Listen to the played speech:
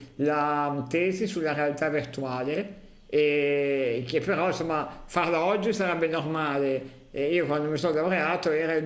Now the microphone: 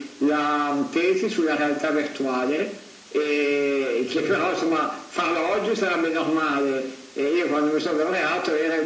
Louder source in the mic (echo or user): echo